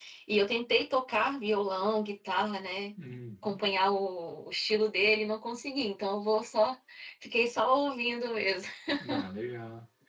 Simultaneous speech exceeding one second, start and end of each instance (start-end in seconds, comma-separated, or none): none